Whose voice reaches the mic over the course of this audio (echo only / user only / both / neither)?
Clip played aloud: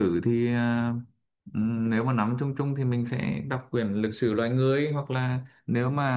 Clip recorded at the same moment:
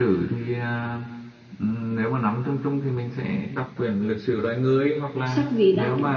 both